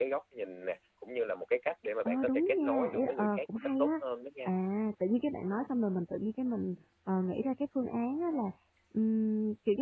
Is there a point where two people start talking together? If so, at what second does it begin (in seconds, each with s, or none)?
2.0 s